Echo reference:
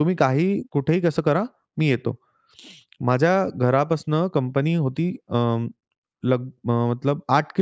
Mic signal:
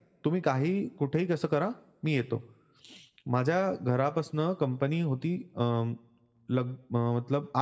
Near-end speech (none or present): none